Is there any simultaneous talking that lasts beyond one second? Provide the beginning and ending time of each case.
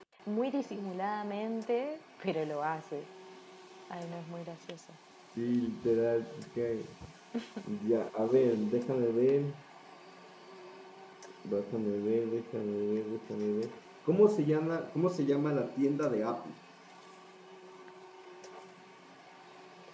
none

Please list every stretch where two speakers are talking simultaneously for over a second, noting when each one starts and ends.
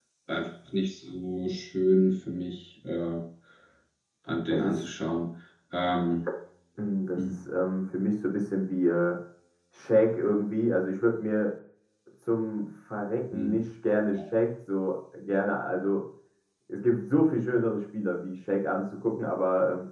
none

